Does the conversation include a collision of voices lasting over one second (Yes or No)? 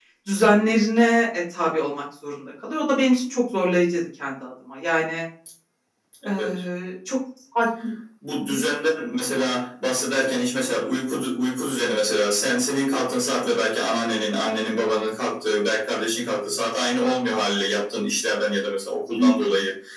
No